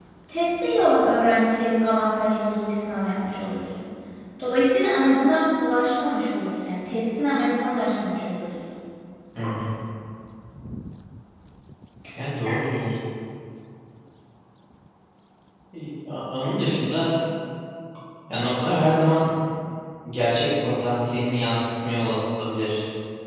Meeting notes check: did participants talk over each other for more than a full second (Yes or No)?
No